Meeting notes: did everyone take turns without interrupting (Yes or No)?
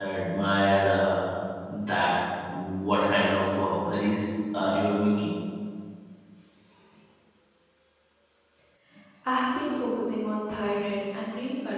Yes